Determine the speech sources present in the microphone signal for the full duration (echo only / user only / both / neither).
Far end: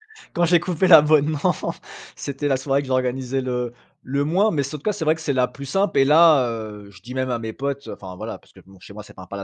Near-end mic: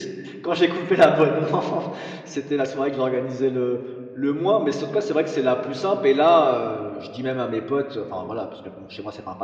echo only